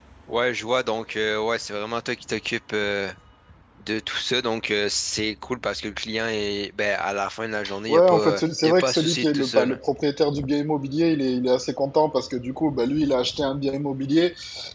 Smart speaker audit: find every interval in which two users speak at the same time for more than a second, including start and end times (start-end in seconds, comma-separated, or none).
7.9-9.8